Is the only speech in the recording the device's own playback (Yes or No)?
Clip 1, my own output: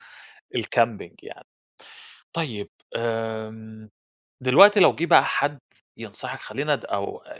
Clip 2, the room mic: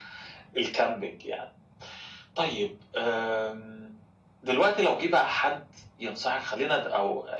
Yes